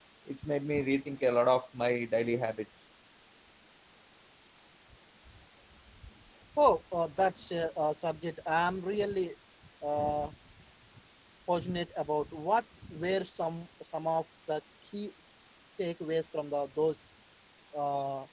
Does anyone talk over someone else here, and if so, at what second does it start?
none

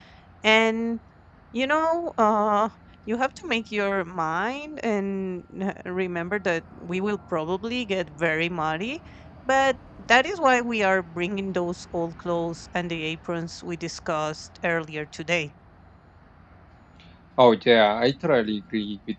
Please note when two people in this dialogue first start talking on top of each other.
none

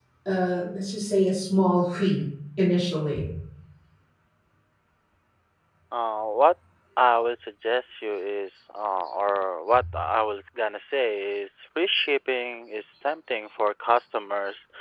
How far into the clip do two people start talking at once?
none

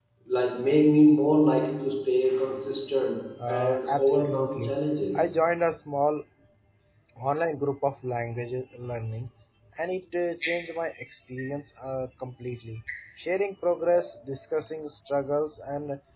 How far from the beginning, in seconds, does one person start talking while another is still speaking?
3.4 s

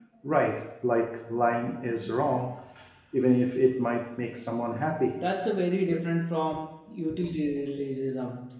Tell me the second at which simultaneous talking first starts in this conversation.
none

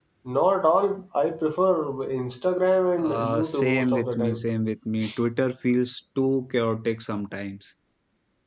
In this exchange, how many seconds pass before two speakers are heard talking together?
3.0 s

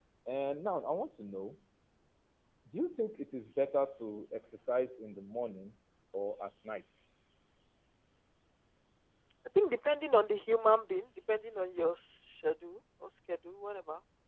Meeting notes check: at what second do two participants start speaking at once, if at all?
none

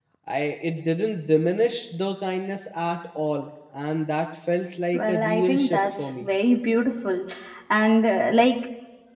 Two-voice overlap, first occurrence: 4.9 s

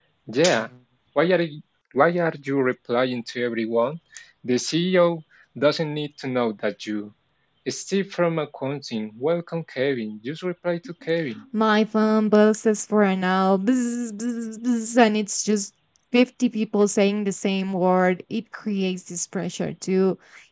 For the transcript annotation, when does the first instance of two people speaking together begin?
none

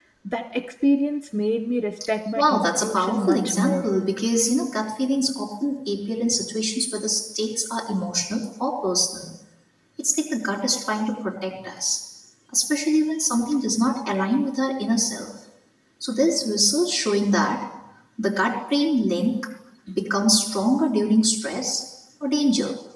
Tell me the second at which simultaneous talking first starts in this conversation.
2.4 s

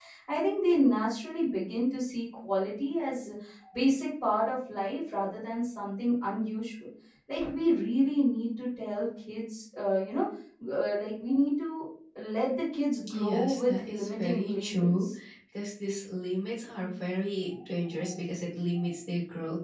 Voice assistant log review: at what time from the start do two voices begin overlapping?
13.1 s

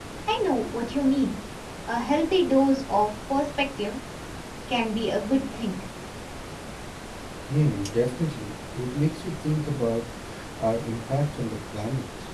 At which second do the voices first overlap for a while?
none

